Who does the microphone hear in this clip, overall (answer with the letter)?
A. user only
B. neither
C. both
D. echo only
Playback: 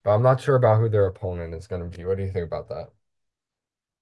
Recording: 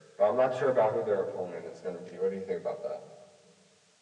D